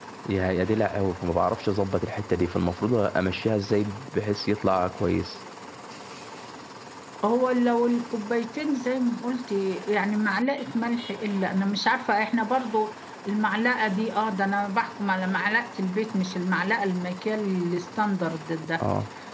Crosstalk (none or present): none